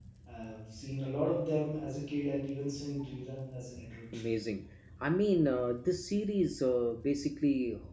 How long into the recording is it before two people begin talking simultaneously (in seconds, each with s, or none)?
none